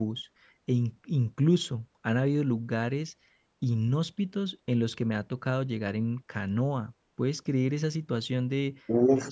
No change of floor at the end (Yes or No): No